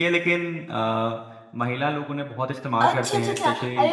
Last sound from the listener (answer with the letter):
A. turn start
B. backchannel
A